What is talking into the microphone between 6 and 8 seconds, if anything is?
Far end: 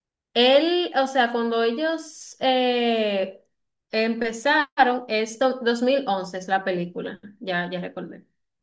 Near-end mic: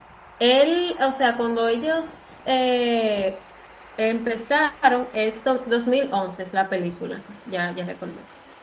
echo only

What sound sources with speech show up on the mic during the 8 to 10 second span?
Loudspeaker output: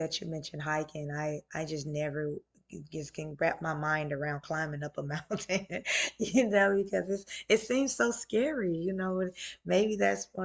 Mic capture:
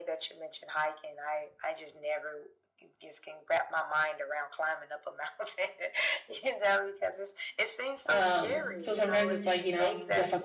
both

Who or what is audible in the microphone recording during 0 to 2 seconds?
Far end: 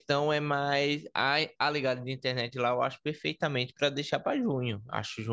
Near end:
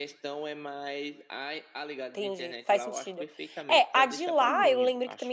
echo only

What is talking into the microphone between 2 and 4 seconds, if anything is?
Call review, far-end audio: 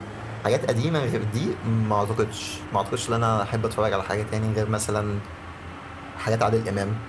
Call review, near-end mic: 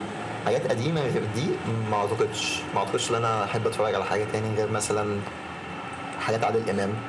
echo only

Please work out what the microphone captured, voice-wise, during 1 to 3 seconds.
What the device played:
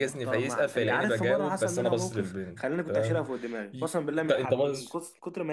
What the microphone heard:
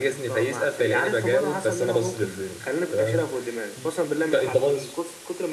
echo only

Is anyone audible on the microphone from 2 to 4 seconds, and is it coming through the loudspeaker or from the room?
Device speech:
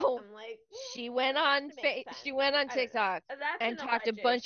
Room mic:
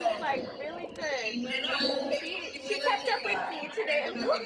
both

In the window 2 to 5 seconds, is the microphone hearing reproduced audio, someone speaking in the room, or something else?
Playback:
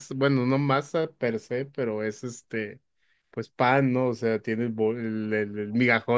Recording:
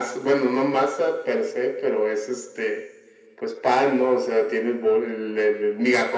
echo only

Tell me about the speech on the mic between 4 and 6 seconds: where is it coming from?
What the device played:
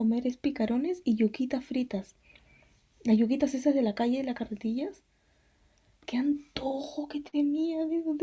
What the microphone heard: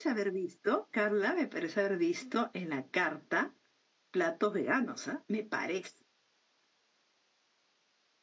user only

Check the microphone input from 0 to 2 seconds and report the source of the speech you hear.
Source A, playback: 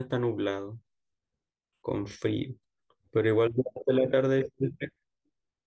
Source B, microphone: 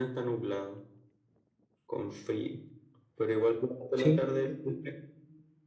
echo only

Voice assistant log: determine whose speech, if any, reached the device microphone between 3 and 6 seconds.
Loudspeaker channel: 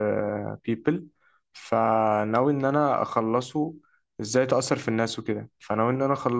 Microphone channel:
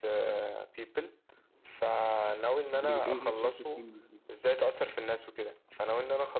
both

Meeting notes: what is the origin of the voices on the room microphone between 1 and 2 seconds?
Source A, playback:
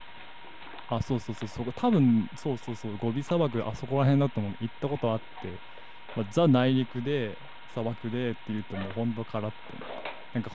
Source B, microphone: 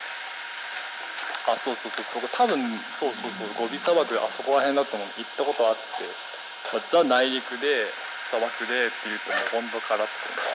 echo only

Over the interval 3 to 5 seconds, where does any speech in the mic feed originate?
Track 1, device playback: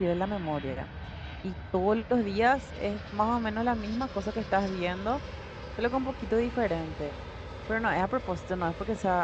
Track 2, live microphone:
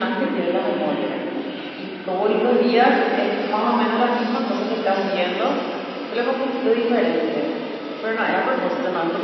echo only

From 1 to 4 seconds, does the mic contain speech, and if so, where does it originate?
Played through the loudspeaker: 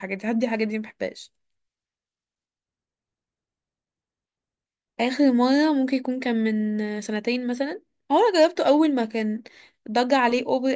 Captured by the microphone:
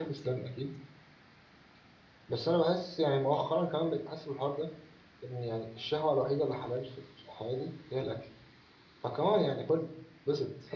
user only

